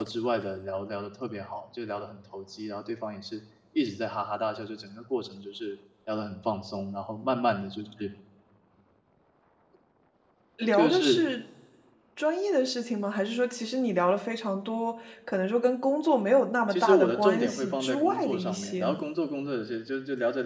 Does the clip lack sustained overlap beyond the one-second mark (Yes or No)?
No